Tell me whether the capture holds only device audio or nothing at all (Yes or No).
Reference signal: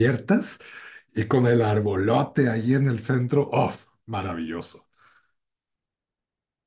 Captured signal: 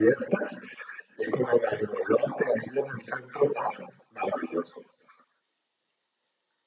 Yes